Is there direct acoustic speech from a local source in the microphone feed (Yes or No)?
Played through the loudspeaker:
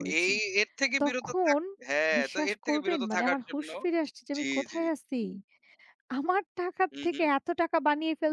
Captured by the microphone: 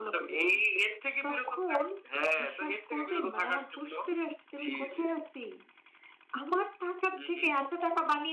No